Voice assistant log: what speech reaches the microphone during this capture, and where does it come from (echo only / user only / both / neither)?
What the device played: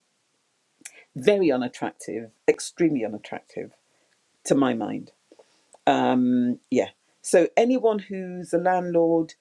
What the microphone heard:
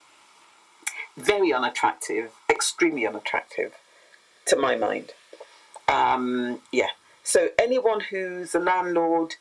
echo only